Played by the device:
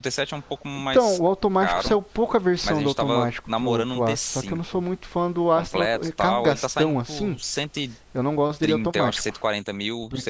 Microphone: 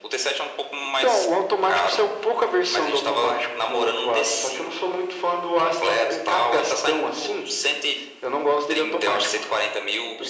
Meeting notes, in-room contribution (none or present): none